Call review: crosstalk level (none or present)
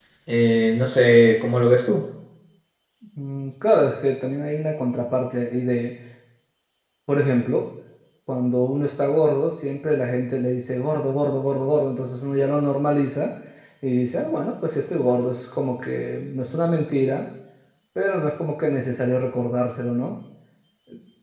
none